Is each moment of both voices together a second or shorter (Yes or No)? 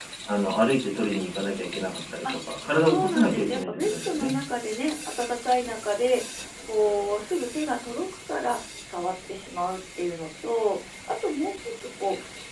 No